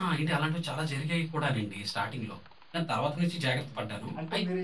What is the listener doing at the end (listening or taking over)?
taking over